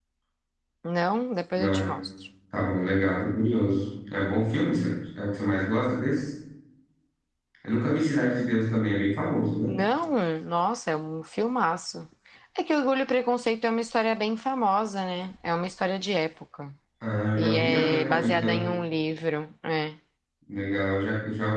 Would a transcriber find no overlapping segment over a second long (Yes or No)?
No